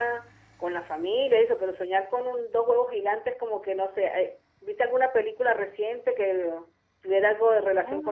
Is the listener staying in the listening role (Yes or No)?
No